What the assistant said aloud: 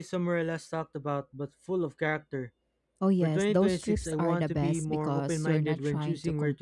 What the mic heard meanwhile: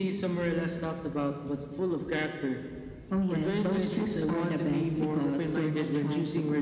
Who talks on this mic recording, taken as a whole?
echo only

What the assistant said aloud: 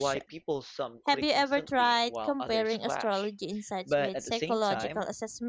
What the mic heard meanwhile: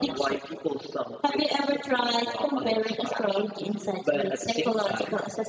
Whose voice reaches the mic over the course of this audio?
echo only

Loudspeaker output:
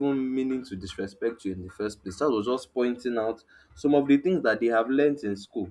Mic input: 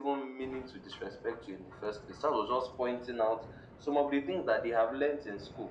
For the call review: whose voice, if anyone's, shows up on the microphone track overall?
echo only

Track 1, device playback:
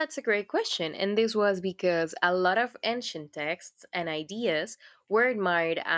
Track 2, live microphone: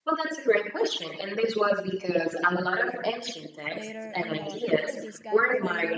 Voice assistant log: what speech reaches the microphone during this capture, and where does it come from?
both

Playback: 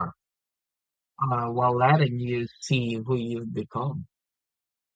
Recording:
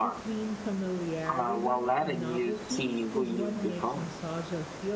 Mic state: both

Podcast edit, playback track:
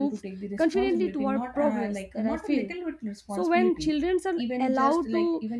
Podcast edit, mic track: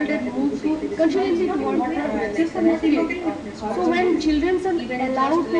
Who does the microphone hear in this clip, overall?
both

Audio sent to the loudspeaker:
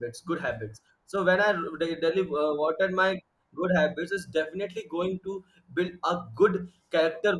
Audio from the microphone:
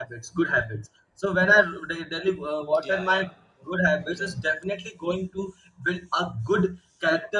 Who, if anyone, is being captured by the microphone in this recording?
both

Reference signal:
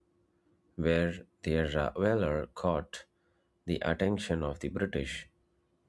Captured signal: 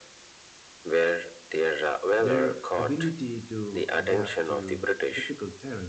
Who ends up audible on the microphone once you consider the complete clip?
both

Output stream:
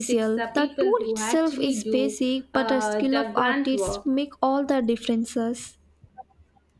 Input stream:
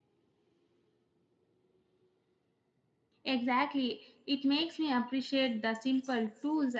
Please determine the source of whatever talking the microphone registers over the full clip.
user only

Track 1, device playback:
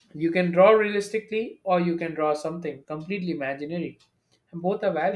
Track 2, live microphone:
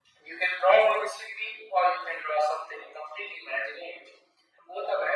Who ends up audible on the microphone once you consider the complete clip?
echo only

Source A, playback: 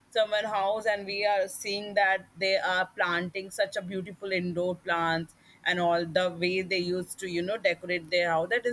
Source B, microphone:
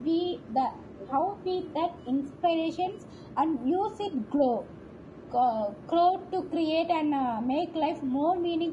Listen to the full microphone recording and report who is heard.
user only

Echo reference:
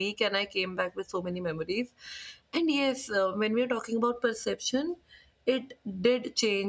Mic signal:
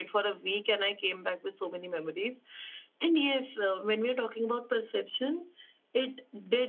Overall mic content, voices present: echo only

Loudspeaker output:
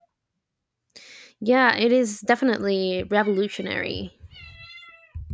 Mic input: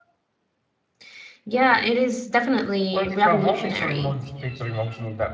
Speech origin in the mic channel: both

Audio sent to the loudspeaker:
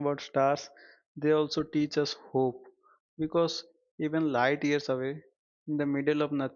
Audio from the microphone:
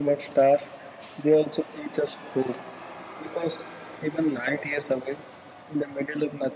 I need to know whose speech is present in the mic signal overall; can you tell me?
echo only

